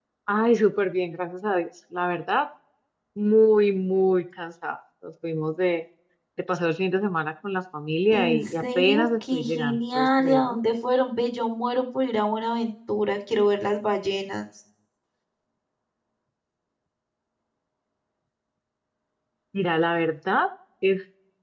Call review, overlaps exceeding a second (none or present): present